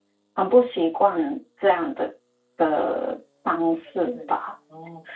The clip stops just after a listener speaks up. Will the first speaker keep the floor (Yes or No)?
No